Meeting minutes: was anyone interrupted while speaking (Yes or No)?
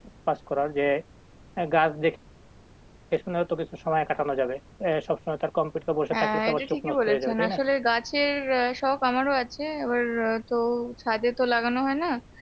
Yes